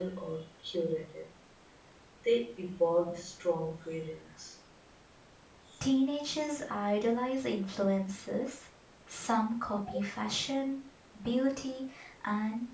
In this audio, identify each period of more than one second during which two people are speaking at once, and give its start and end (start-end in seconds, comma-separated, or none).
none